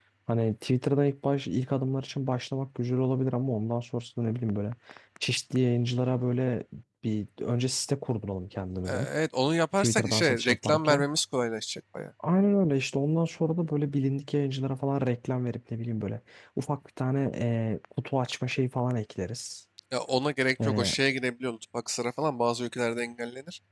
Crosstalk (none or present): present